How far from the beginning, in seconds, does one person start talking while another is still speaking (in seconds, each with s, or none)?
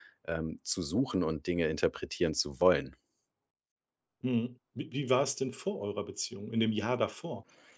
none